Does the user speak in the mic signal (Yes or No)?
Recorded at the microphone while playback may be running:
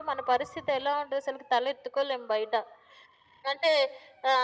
No